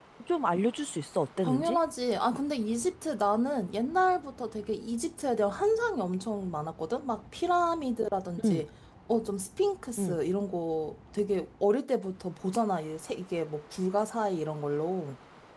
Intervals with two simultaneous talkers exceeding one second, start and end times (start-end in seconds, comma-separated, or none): none